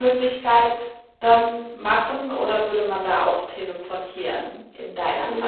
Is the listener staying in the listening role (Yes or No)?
No